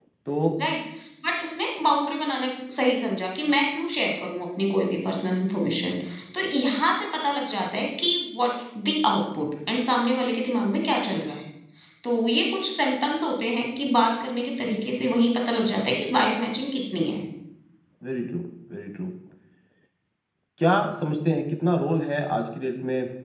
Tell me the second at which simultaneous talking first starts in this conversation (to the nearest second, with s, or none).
none